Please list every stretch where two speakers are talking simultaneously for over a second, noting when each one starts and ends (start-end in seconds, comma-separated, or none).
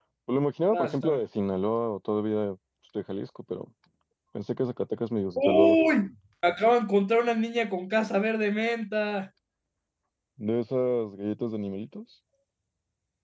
none